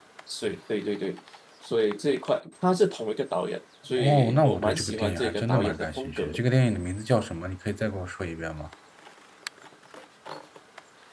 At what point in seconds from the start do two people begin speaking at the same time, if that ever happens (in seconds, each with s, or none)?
4.0 s